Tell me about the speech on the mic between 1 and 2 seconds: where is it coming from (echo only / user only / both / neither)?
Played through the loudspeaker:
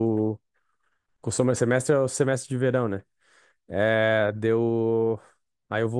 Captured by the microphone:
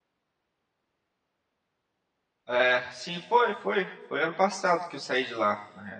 neither